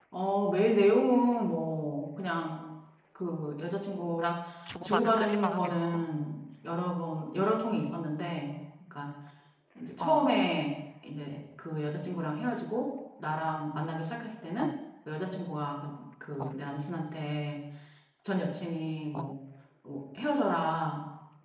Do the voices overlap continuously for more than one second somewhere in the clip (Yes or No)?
Yes